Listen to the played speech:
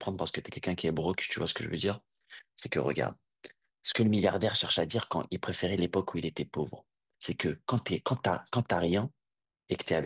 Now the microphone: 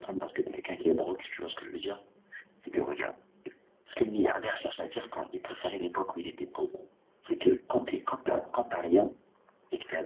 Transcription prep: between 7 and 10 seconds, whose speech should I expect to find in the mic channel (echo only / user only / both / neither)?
echo only